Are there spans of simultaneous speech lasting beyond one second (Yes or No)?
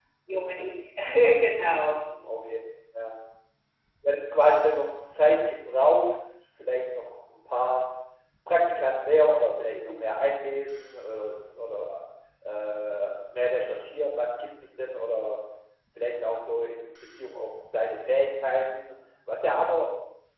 No